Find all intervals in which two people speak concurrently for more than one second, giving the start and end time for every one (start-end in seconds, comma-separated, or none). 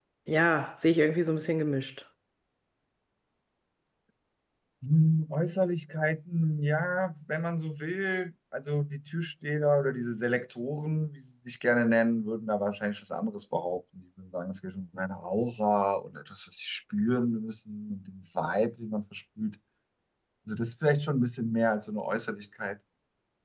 none